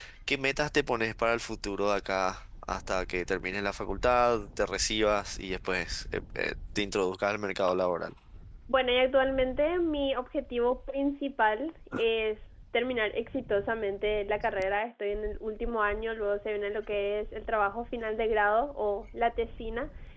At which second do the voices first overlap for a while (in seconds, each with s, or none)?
none